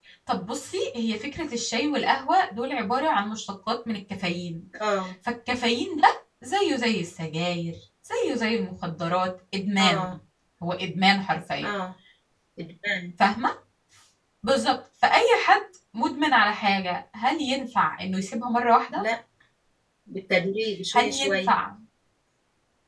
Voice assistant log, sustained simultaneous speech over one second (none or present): none